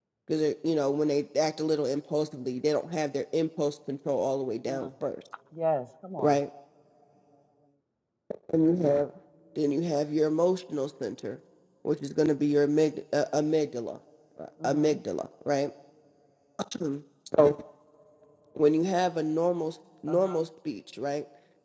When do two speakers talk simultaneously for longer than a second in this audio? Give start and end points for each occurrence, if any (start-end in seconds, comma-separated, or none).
none